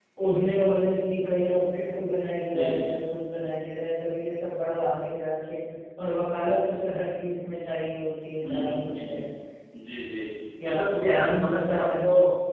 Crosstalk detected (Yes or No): Yes